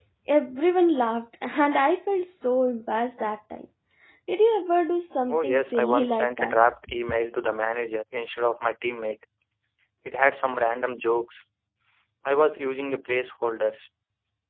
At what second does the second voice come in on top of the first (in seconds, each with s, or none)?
5.3 s